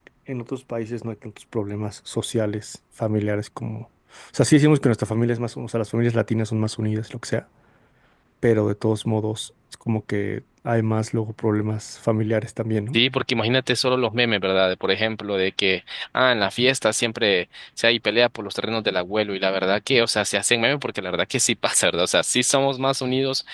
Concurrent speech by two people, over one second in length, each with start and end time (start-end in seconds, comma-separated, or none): none